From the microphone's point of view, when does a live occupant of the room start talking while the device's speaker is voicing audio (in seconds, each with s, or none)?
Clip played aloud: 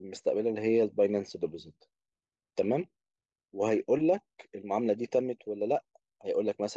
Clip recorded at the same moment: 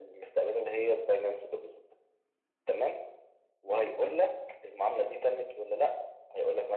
none